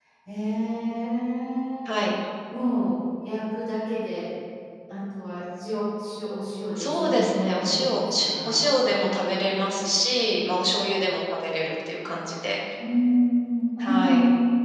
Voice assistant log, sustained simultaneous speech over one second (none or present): present